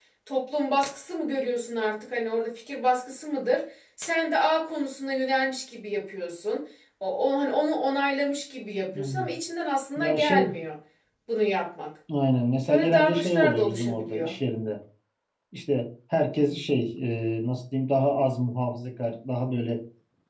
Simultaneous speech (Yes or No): Yes